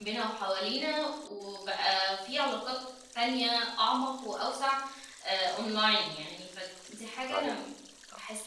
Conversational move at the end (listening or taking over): taking over